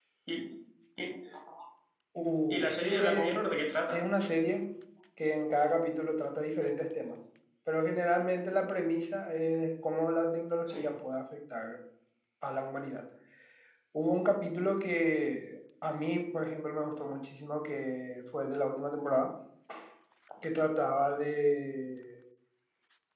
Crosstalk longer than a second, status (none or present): present